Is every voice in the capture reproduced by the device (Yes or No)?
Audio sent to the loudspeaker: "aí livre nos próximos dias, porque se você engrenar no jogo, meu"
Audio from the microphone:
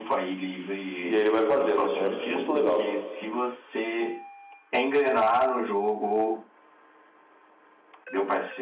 No